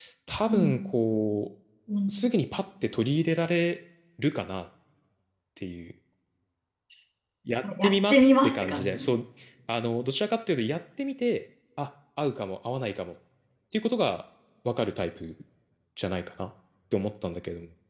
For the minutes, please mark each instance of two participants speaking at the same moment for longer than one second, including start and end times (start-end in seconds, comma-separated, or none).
7.8-9.1